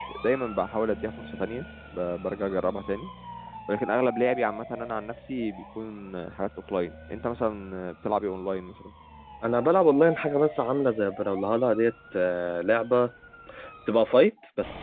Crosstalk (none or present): none